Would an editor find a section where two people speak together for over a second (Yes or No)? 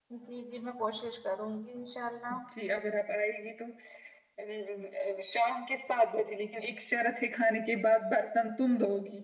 No